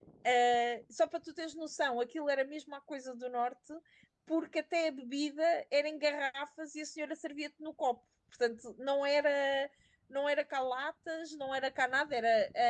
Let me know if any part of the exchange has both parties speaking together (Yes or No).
No